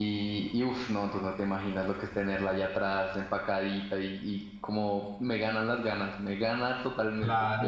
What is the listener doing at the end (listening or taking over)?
taking over